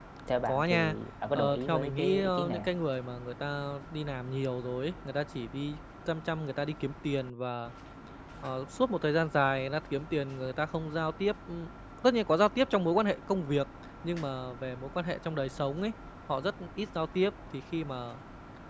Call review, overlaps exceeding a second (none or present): present